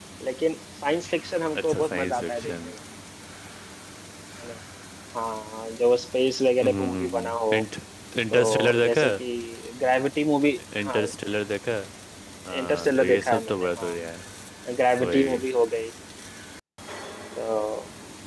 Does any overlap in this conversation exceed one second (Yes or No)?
Yes